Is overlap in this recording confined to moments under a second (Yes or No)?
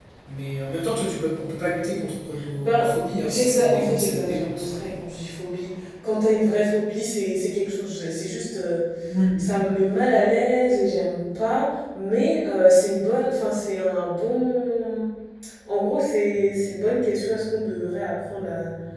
No